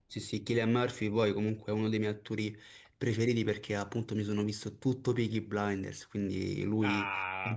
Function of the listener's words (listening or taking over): taking over